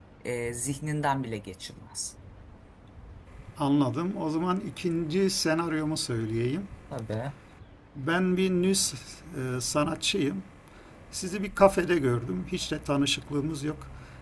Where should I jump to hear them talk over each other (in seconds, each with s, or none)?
none